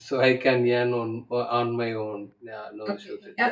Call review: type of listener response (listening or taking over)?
taking over